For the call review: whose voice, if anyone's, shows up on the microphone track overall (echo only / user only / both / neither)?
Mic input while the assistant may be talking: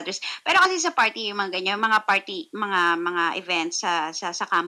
echo only